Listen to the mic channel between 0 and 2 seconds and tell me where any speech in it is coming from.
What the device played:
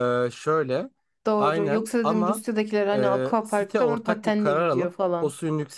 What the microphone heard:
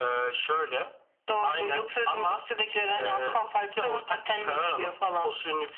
echo only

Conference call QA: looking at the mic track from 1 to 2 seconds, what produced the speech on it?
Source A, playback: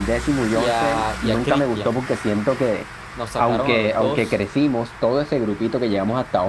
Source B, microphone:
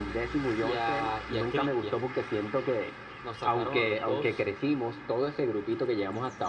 echo only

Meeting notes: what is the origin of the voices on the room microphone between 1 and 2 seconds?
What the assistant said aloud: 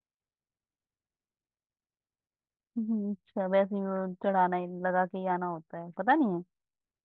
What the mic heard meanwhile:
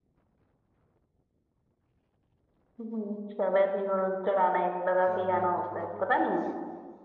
neither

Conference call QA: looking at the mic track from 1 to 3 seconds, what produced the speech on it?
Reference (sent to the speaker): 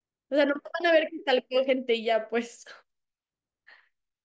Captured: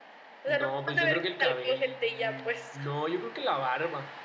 both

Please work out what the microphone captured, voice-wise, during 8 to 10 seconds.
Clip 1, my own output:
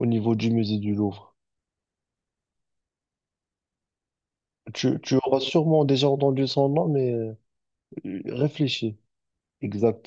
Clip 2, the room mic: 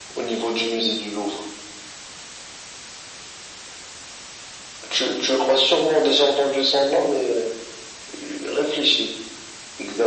echo only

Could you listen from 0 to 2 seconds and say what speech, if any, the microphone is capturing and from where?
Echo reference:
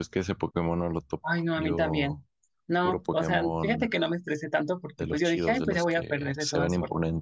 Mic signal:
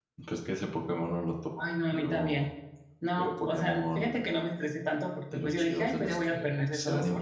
echo only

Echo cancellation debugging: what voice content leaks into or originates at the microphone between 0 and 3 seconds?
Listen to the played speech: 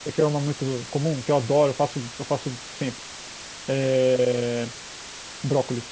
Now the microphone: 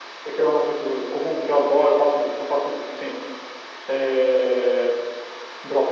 echo only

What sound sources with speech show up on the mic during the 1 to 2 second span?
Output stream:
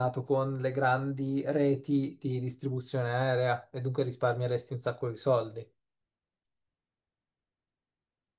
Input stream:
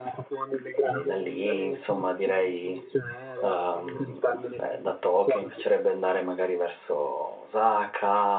both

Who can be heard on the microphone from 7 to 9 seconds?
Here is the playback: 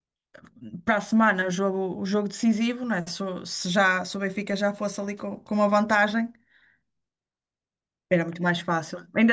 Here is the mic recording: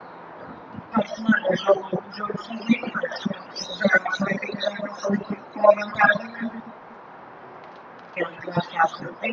echo only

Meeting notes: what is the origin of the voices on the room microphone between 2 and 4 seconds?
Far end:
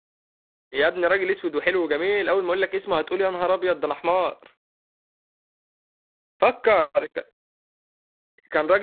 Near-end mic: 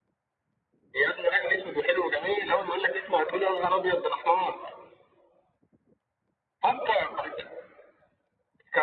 echo only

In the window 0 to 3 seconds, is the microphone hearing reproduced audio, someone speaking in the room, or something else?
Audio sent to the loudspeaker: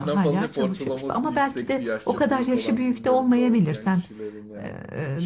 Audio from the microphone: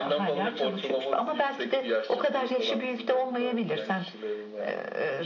echo only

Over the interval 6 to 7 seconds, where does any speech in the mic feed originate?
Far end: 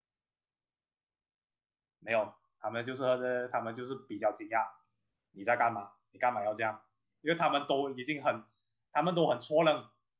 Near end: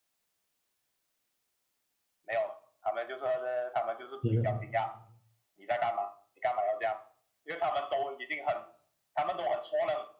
echo only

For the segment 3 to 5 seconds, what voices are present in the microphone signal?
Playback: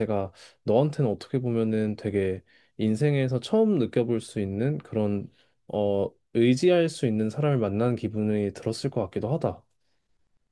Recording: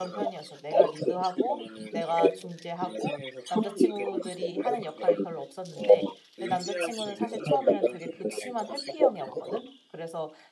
both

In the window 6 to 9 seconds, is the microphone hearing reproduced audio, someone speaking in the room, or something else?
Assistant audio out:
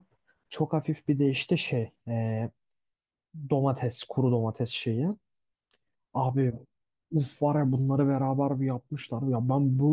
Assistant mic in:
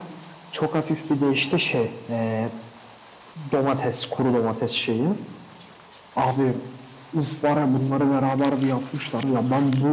echo only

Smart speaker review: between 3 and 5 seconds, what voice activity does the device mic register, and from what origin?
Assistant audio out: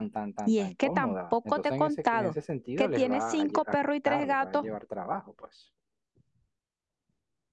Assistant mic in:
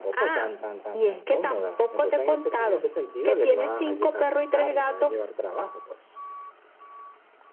echo only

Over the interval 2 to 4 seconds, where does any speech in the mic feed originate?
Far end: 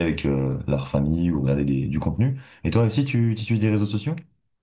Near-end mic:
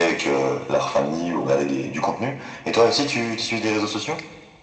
echo only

